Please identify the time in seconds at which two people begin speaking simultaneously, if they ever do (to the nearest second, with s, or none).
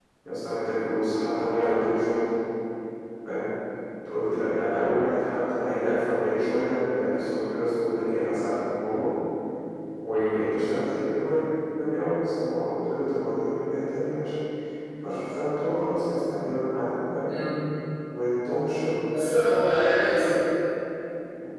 none